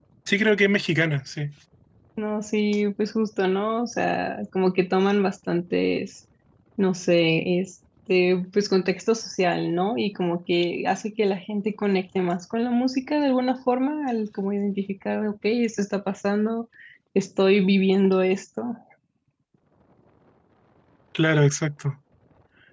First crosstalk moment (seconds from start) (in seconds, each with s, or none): none